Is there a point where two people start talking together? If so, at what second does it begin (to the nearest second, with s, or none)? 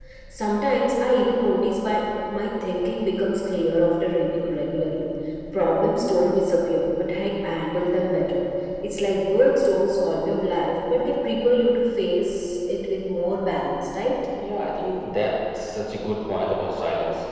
none